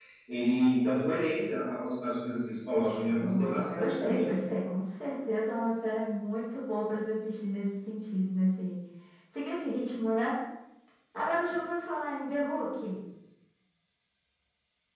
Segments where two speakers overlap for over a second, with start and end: 2.8-4.3

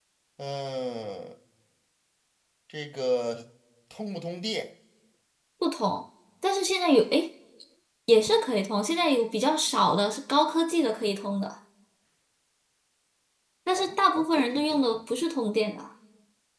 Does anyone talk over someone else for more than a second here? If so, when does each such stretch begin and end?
13.8-15.0

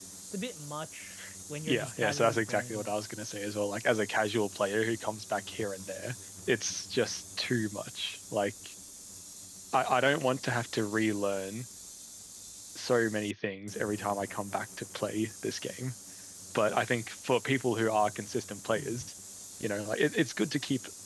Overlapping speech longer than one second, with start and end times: 1.7-2.9

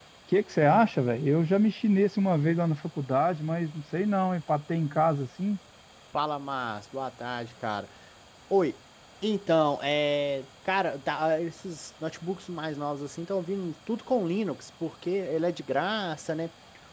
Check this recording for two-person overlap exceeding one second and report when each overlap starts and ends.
none

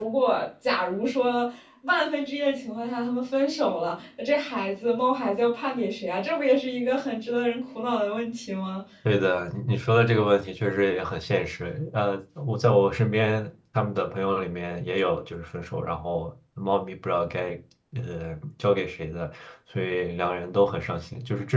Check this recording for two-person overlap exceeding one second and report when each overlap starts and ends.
none

